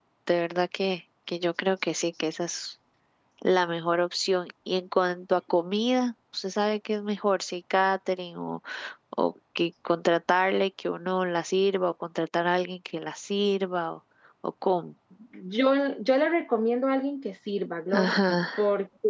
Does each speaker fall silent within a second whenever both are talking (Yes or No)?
Yes